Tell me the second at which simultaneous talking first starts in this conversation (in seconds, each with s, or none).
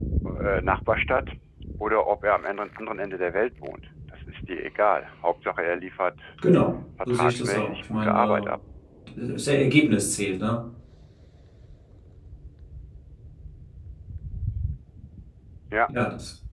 7.1 s